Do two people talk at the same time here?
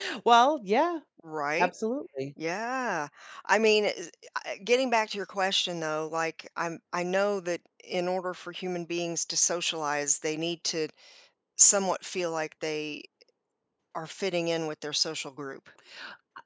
No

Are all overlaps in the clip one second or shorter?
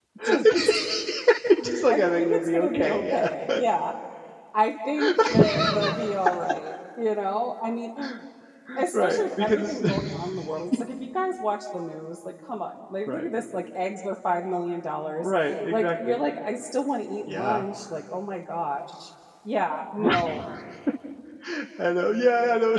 No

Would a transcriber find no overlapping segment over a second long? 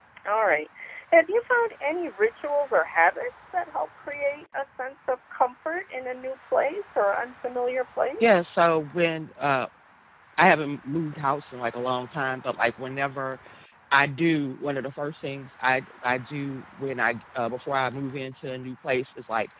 Yes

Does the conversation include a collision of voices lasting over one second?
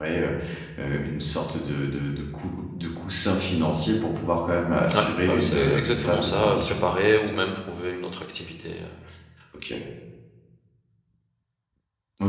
Yes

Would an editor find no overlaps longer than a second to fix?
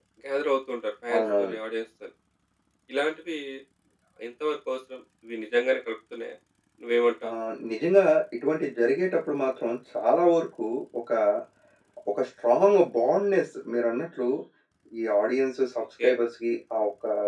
Yes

